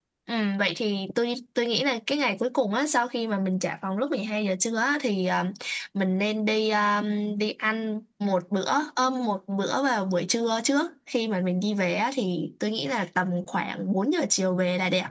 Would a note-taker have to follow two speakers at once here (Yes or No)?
No